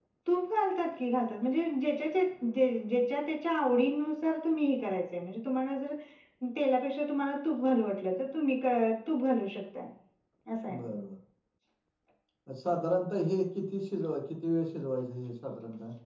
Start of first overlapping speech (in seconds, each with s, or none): none